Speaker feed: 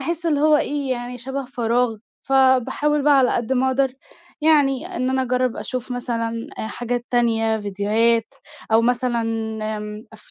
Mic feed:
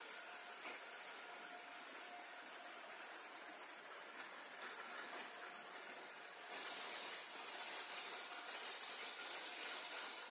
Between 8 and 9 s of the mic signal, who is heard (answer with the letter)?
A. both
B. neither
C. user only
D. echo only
B